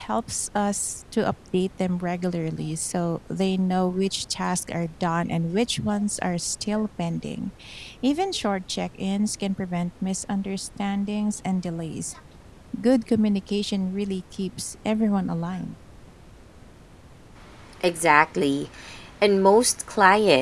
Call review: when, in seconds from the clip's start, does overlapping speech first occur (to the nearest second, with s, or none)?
none